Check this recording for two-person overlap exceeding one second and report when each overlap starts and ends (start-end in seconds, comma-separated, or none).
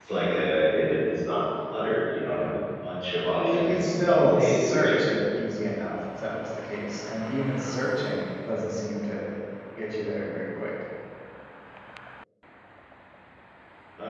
3.4-5.0